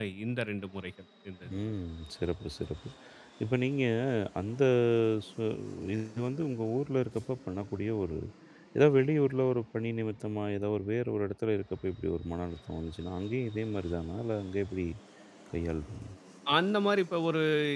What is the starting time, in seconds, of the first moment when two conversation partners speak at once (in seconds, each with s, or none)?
none